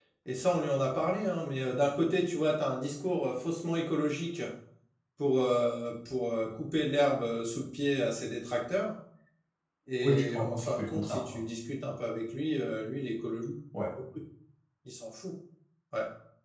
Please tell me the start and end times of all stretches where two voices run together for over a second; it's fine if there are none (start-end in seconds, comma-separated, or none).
10.0-11.4